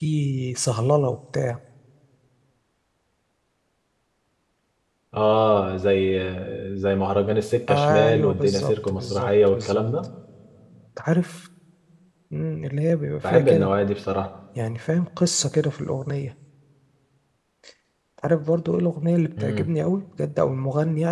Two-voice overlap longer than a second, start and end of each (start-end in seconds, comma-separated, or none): 7.7-9.8